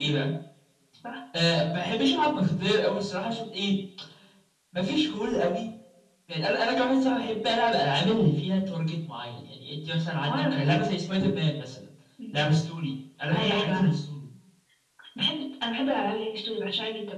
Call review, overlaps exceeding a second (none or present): none